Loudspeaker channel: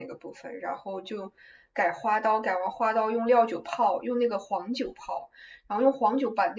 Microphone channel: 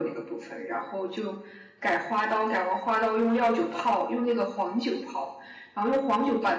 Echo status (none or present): present